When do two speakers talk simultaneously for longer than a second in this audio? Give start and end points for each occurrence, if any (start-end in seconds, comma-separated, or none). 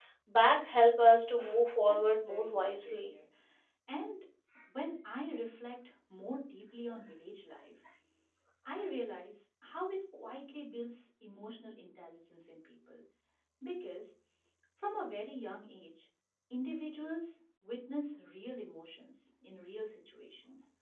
1.9-3.1